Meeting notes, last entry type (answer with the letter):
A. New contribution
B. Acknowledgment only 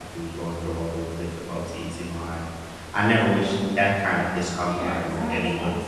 A